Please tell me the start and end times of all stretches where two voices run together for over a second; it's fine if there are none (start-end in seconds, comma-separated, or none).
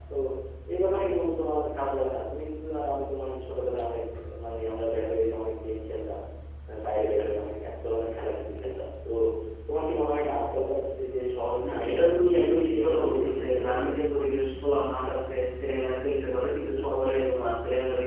12.5-13.9